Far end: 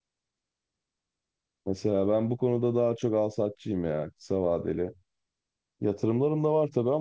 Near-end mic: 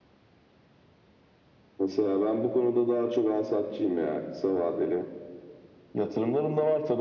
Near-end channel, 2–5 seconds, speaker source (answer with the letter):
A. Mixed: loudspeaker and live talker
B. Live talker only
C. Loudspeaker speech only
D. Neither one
C